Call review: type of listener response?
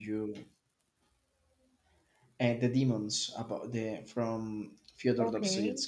taking over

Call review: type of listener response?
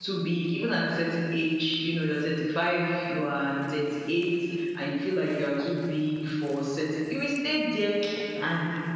taking over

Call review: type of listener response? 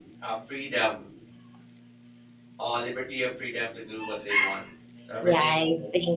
taking over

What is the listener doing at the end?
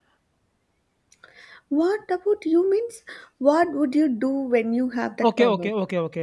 taking over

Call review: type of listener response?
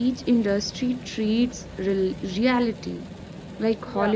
listening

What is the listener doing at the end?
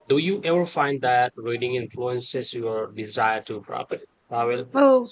taking over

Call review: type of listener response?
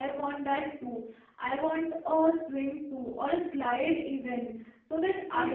listening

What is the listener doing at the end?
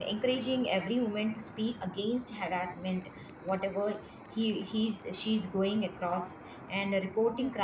listening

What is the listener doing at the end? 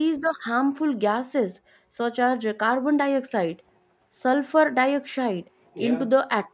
listening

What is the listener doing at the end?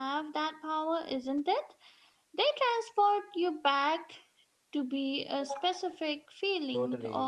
taking over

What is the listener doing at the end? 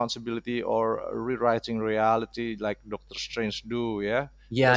taking over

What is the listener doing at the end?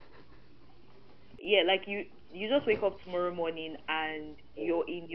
listening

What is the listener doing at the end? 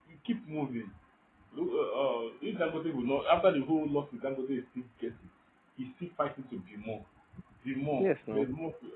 listening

